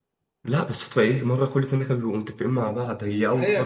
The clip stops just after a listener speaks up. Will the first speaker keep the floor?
No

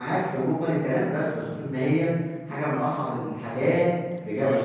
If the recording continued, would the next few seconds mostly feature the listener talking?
Yes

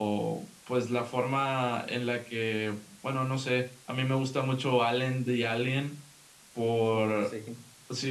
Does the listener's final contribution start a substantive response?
No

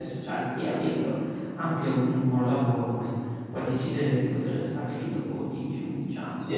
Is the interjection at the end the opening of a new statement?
Yes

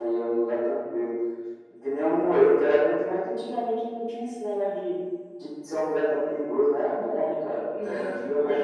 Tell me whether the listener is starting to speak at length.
Yes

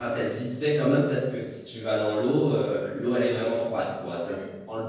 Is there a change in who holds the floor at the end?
No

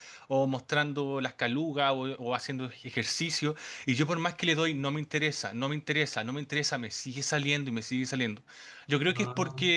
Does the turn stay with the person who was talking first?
Yes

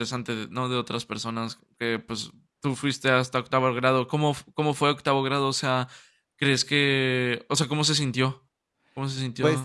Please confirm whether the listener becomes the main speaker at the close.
Yes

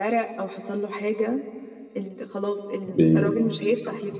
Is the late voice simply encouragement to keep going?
Yes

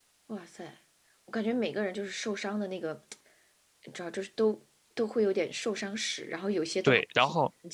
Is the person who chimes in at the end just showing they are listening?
No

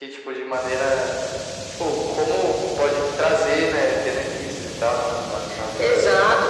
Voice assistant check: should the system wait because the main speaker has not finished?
No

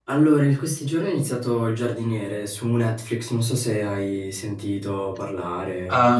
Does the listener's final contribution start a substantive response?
Yes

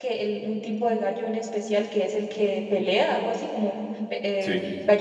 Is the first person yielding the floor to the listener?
Yes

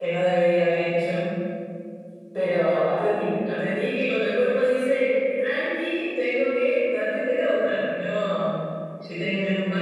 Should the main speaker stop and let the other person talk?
No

